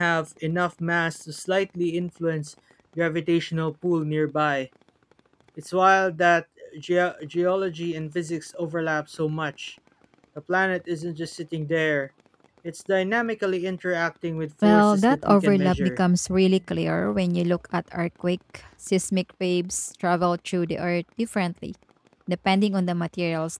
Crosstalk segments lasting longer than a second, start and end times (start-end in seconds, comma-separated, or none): 14.6-16.0